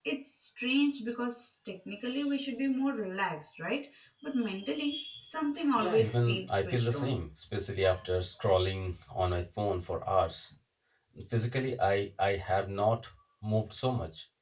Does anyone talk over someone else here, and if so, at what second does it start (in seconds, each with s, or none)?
5.8 s